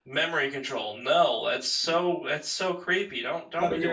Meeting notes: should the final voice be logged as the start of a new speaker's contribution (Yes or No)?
Yes